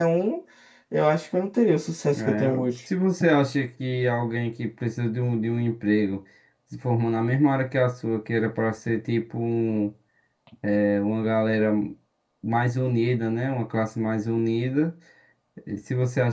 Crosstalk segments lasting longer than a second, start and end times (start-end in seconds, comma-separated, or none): none